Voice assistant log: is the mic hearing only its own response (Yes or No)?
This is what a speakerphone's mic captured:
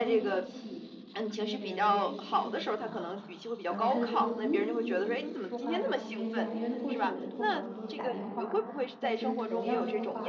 No